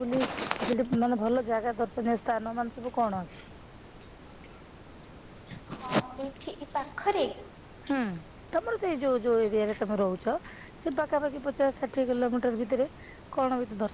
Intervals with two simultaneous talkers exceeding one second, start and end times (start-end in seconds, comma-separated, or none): none